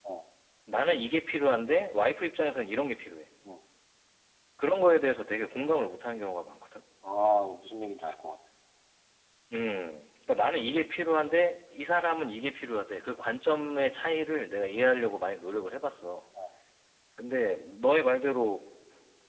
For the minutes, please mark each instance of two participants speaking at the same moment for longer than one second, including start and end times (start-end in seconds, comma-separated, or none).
none